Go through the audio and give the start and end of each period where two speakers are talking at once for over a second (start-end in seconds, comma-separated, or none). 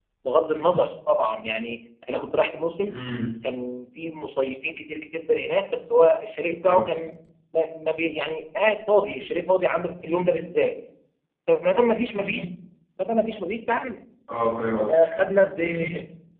none